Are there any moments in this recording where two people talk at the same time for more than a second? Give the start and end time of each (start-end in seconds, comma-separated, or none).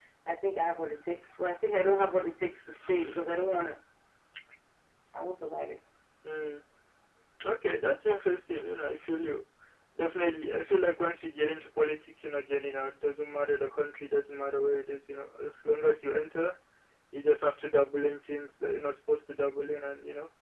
none